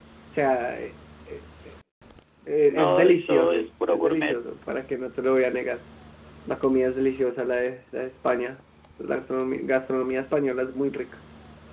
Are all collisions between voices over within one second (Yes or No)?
No